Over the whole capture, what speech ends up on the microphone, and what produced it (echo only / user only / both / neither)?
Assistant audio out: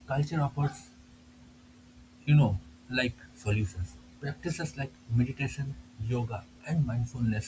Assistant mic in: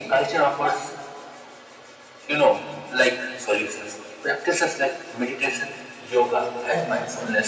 echo only